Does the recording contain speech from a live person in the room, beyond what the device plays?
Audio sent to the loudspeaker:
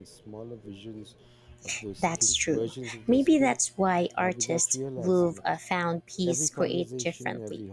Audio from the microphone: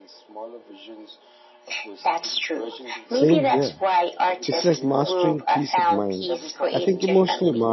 Yes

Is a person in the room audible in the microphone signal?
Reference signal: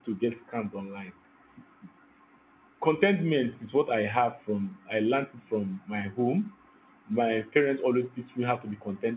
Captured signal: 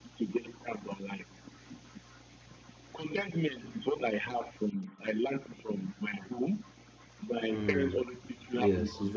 Yes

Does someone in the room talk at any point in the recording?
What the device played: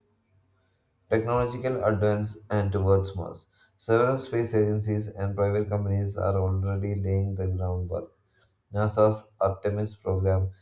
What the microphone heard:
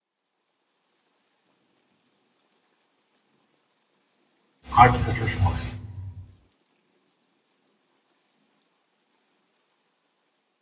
Yes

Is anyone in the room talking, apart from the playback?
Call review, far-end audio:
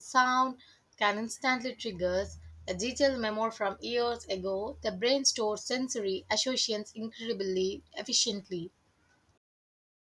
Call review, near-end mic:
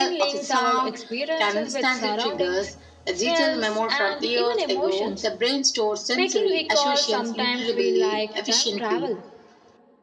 Yes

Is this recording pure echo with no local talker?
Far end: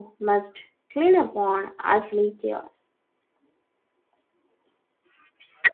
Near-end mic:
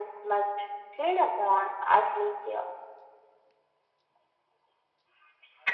Yes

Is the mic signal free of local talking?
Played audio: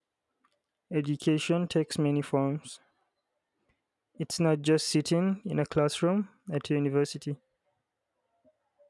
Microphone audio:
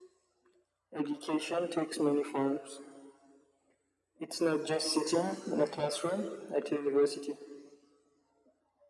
Yes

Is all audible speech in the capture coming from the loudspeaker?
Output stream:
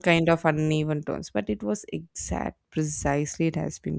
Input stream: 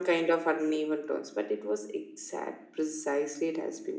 Yes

